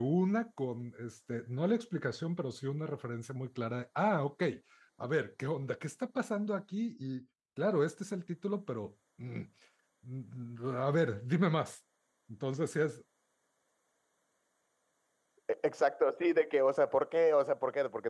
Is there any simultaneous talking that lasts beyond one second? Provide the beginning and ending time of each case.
none

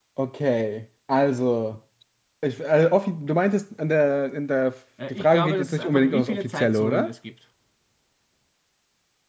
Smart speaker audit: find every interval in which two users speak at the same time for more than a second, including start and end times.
5.1-7.1

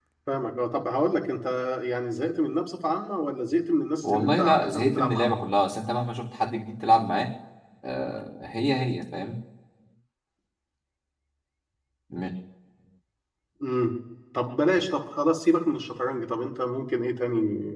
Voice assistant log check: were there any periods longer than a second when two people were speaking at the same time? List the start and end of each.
4.1-5.4

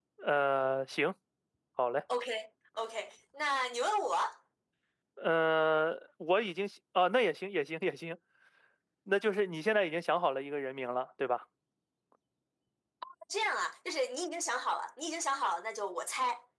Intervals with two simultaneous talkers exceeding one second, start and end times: none

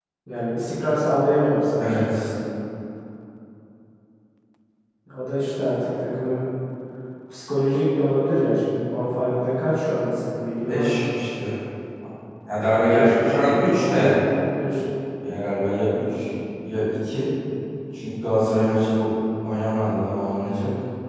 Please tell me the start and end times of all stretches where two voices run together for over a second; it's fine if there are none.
12.7-14.1

